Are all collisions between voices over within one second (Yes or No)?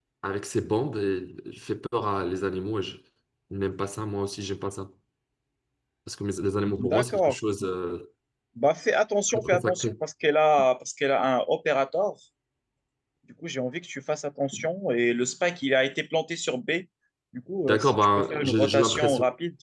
No